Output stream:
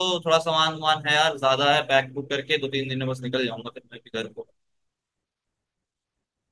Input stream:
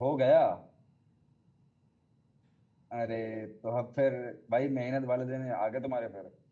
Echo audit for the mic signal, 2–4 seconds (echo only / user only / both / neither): user only